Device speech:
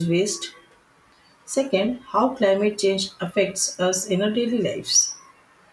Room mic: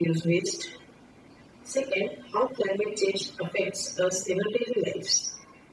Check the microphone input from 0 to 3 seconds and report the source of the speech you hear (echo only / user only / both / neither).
echo only